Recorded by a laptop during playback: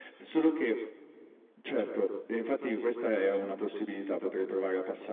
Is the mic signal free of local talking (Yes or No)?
Yes